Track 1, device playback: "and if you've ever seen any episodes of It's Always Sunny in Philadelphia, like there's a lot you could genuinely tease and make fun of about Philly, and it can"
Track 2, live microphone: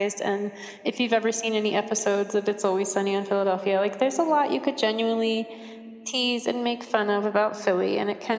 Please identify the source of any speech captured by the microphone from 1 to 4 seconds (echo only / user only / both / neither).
echo only